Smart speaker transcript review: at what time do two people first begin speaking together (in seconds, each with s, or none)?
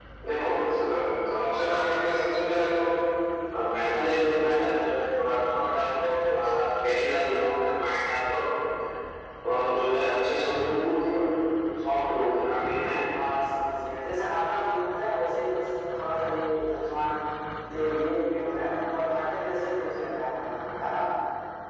none